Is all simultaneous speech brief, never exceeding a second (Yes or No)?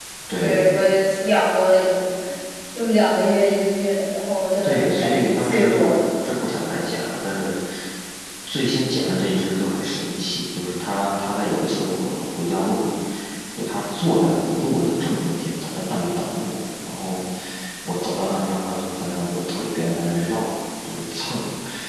No